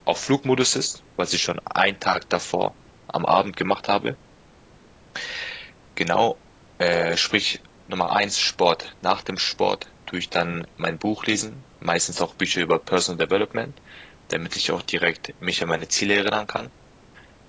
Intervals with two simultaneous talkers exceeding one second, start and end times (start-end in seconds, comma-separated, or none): none